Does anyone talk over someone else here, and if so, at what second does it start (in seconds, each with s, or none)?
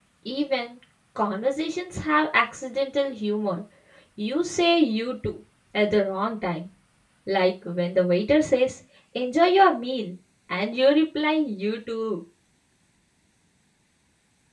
none